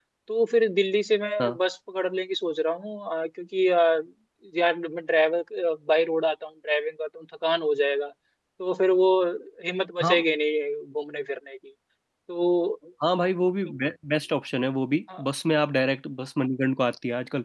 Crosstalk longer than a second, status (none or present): none